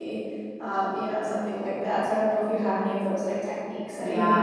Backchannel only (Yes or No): No